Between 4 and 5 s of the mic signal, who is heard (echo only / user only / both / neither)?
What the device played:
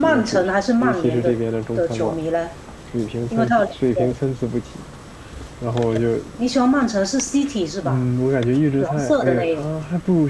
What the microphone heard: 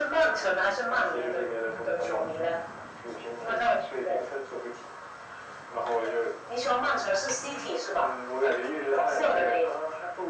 echo only